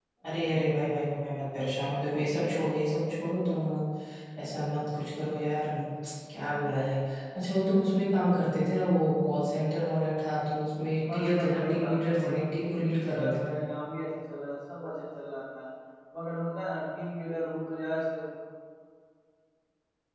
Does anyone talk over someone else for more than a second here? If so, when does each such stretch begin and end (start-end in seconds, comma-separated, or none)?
11.1-13.6